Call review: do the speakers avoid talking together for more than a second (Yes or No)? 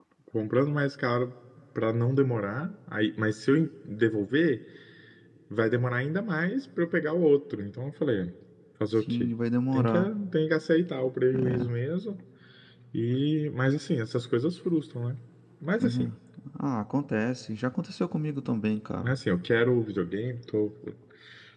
Yes